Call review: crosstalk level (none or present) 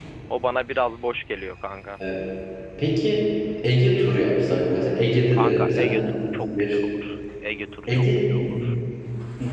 present